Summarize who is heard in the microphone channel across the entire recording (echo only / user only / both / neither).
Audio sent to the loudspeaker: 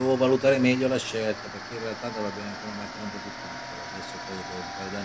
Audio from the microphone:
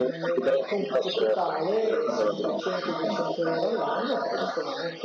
both